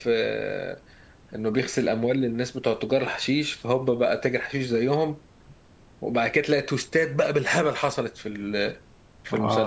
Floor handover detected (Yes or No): Yes